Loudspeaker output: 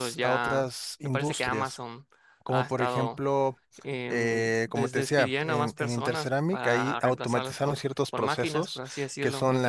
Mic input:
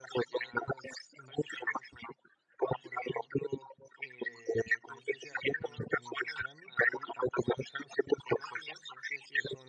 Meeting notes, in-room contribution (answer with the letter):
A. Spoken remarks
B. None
B